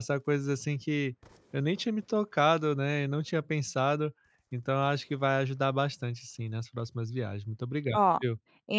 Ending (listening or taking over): taking over